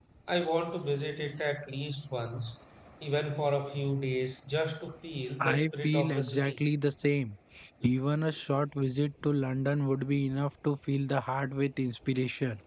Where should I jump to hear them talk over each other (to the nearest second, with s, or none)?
5 s